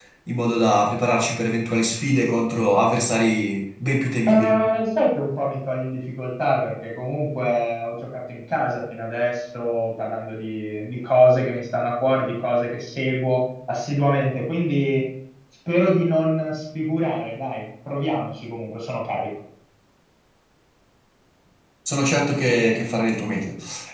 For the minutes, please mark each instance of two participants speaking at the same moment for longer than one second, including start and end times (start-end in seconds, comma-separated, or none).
none